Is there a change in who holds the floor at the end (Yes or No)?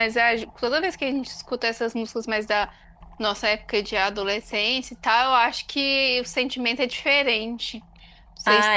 Yes